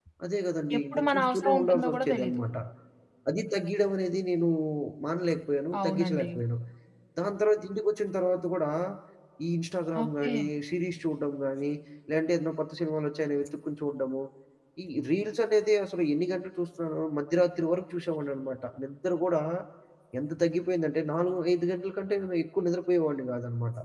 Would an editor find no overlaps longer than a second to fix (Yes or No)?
No